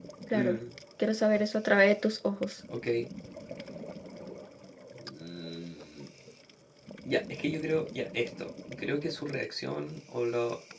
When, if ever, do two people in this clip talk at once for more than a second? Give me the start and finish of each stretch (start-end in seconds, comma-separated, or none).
none